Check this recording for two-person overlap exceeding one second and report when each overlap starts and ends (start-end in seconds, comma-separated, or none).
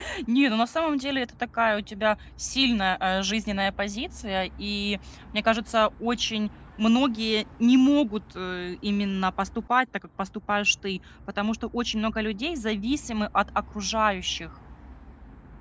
none